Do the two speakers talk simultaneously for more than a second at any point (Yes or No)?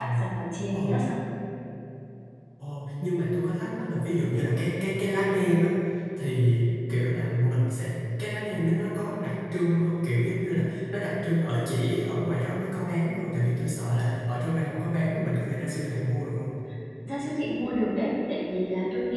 No